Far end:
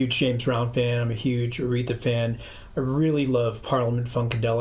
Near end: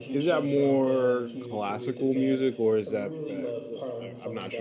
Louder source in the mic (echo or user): user